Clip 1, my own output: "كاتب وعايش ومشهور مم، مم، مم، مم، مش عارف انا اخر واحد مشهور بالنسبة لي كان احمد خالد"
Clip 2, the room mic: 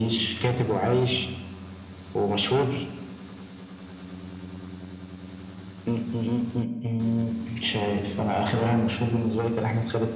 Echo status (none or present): present